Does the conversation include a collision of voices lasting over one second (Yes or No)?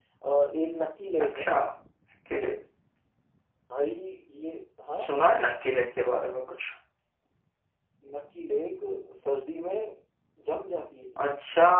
No